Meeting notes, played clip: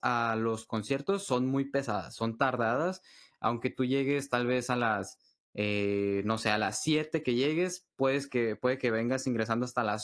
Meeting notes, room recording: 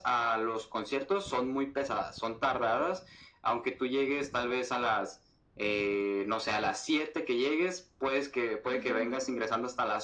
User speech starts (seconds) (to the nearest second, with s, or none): 9 s